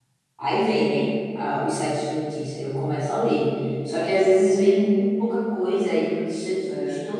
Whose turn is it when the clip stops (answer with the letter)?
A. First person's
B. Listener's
A